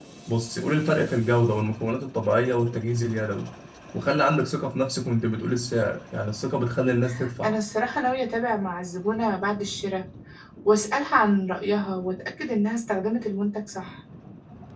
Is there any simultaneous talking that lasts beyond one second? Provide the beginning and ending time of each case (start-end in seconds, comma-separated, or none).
none